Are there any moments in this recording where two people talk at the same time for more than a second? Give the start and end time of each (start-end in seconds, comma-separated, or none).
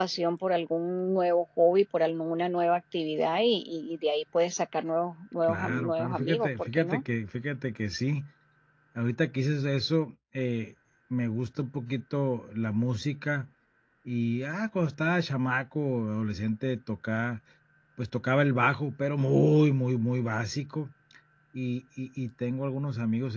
5.4-7.0